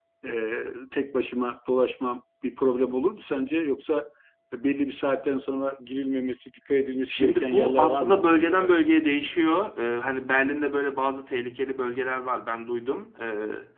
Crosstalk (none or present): present